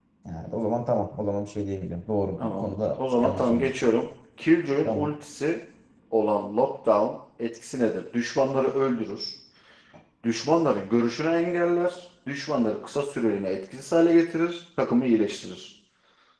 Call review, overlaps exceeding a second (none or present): present